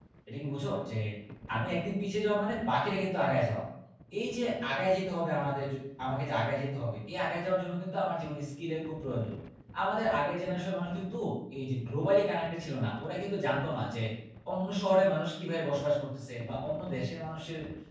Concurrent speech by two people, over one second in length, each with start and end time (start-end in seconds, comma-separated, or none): none